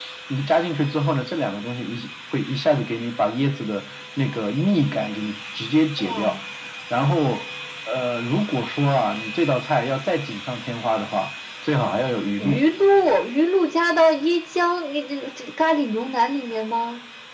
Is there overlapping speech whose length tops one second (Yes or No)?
No